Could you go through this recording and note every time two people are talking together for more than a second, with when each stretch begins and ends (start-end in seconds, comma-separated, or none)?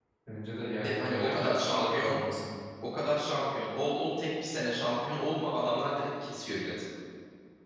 0.8-2.2